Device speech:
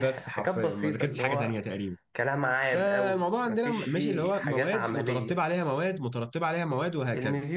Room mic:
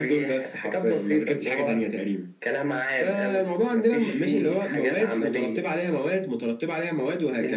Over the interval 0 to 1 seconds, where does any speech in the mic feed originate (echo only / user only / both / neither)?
echo only